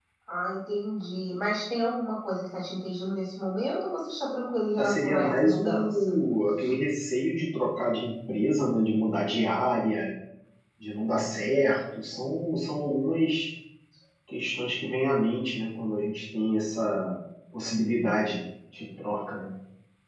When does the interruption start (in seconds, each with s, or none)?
4.8 s